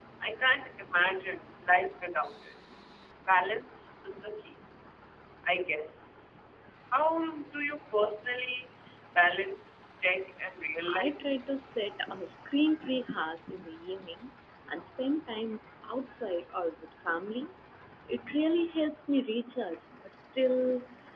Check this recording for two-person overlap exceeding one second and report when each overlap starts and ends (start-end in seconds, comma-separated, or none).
none